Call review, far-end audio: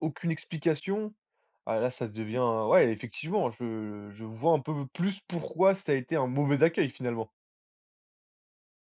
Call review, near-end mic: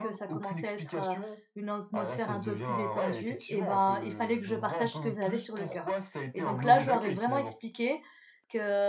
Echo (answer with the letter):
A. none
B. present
B